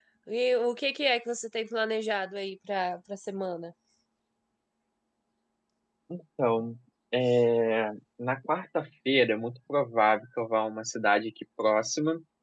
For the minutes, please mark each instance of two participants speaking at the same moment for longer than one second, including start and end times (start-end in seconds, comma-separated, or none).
none